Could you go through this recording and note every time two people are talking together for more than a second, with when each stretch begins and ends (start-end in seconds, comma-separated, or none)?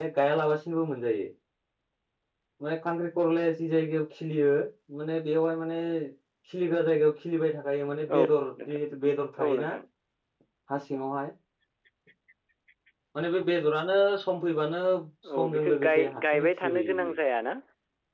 15.3-17.2